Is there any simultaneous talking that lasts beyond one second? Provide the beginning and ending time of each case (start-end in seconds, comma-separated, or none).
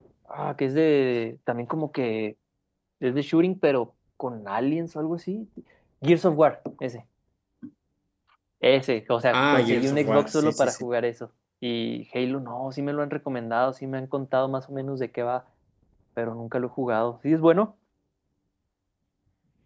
9.3-10.8